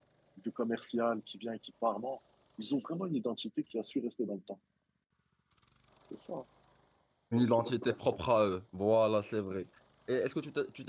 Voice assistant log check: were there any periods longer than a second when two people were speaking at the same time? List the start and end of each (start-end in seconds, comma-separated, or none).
none